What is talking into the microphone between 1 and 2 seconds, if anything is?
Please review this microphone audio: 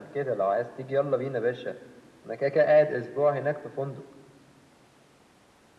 echo only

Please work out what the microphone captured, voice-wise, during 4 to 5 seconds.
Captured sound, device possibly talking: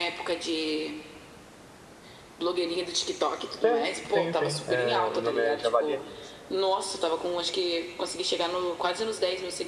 both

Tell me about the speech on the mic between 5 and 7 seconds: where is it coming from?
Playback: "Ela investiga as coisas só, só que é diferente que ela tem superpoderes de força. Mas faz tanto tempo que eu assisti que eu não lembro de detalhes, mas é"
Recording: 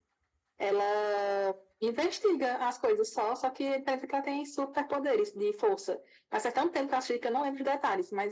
echo only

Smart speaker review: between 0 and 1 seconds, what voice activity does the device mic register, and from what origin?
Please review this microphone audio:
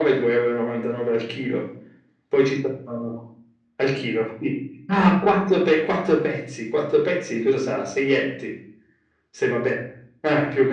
echo only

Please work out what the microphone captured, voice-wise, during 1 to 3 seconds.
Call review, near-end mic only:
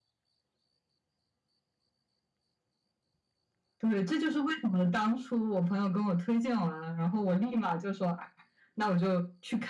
neither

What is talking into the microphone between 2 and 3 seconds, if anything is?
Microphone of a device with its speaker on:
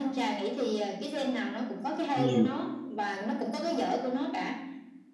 both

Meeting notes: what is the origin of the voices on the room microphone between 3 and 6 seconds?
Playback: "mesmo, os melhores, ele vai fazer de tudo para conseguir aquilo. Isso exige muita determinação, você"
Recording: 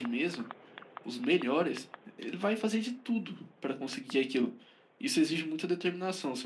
echo only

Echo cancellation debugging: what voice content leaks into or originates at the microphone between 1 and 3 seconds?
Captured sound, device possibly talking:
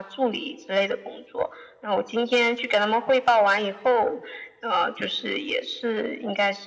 echo only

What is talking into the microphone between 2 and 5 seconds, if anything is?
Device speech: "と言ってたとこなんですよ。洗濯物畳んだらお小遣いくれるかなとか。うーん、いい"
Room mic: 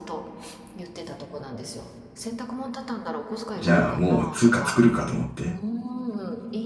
both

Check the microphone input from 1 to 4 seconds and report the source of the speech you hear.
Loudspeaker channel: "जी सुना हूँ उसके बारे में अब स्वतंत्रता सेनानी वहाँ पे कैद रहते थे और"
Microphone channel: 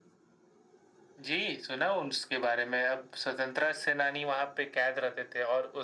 echo only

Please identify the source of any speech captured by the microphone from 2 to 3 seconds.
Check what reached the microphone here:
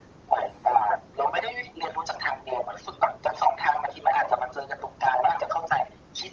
echo only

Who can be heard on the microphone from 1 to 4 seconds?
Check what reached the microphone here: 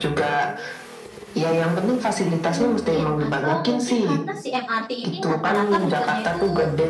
both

